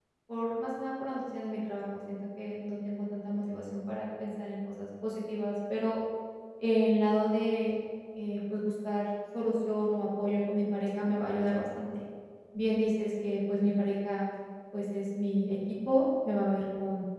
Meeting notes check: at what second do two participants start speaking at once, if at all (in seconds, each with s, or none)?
none